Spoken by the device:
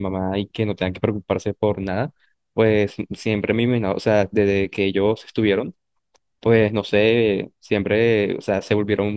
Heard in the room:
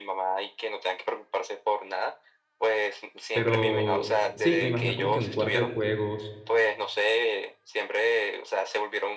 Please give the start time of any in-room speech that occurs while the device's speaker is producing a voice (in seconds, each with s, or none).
3.3 s